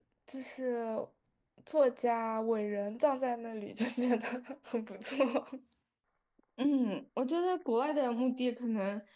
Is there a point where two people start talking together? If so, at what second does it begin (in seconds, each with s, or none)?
none